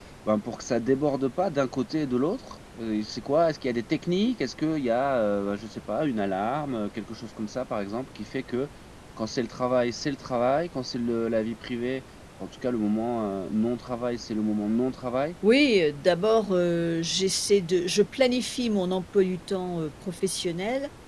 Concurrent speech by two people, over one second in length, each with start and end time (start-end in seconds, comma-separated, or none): none